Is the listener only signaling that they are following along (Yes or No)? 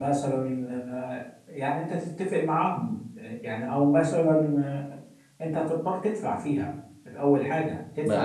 No